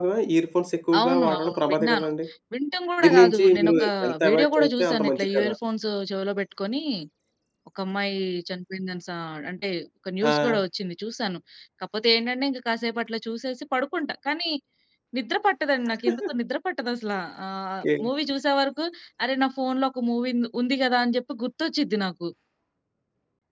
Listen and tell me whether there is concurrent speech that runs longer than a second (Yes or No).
Yes